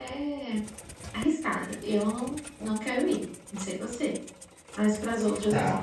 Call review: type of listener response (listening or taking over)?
taking over